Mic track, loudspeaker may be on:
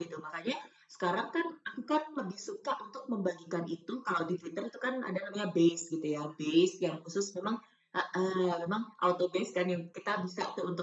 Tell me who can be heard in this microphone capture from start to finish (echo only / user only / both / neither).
echo only